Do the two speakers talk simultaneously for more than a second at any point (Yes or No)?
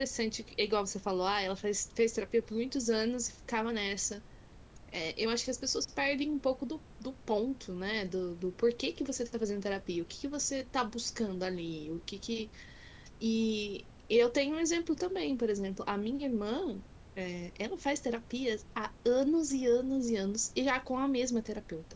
No